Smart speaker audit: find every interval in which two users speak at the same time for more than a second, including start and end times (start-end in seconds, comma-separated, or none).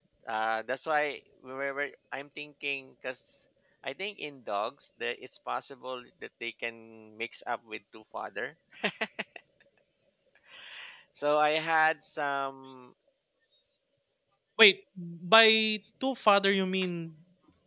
none